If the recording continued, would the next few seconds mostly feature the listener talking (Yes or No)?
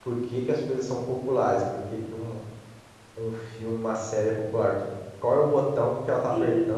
No